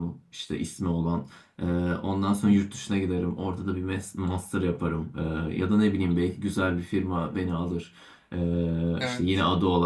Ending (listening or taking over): listening